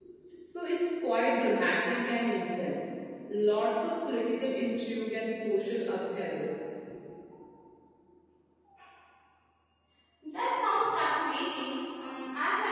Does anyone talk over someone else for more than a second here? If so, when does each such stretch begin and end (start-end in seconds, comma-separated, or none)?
none